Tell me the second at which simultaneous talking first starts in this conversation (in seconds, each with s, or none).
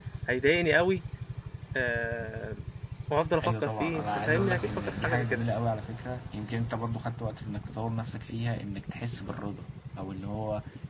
3.4 s